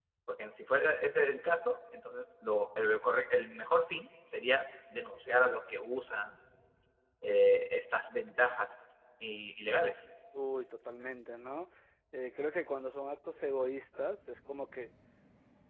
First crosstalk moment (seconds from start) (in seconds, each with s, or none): none